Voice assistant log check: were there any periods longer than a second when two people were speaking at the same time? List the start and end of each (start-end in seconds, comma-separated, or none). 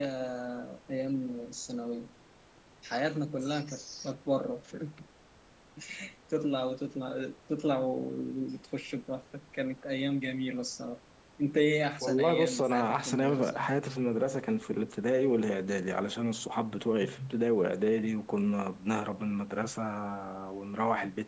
12.0-13.6